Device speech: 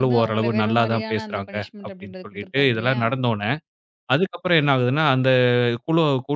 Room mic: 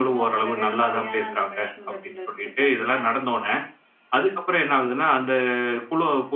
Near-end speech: none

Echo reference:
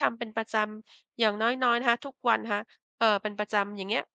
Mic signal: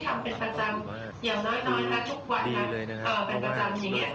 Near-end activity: present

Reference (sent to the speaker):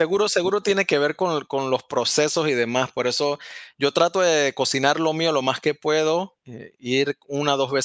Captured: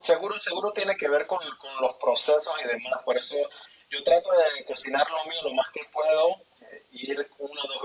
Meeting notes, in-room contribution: none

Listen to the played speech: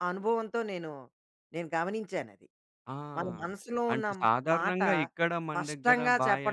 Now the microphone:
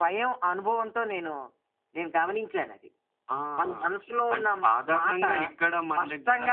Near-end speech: none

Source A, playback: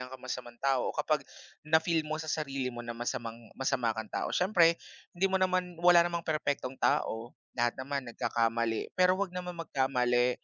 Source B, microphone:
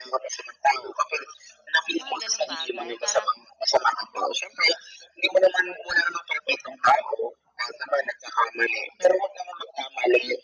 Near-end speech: present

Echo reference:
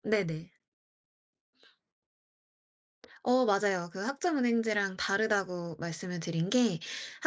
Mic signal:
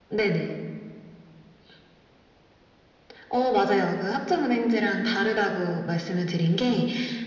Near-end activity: none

